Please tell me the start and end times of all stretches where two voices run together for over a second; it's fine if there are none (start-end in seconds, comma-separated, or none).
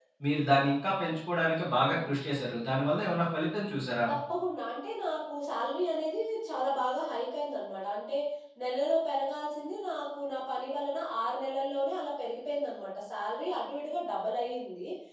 none